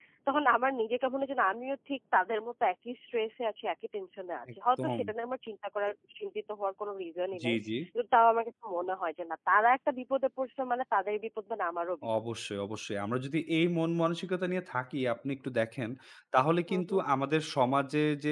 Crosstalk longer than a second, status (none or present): none